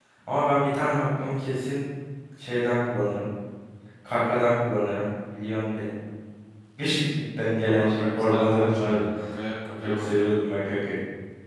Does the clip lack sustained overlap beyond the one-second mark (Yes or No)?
No